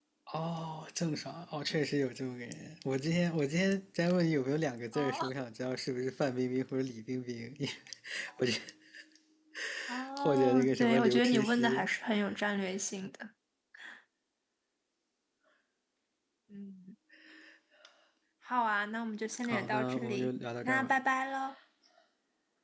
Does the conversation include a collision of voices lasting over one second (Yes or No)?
Yes